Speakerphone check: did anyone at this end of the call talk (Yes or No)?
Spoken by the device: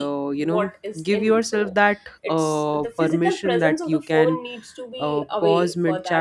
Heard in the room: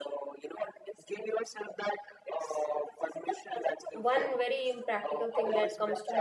Yes